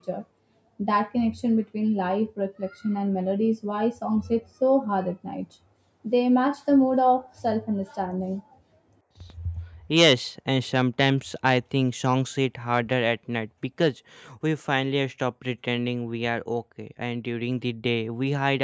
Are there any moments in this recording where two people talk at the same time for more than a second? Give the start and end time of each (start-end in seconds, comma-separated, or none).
none